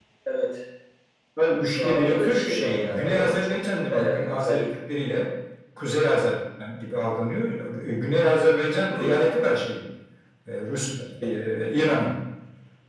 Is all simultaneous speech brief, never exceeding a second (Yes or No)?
No